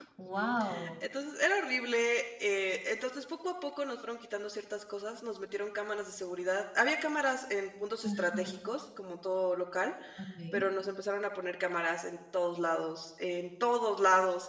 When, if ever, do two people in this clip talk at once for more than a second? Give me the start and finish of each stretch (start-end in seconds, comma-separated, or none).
none